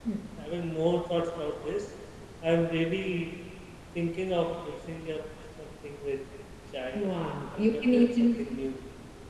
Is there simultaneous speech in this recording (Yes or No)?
Yes